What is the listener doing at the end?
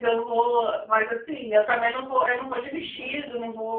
listening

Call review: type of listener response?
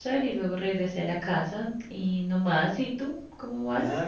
taking over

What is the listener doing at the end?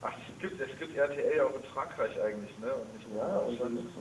taking over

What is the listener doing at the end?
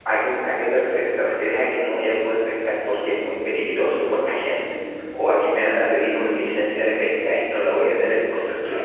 taking over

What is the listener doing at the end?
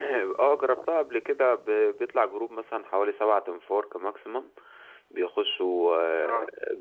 listening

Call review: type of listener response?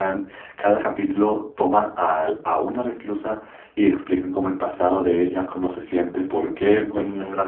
listening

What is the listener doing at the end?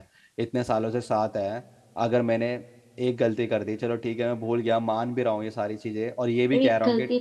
taking over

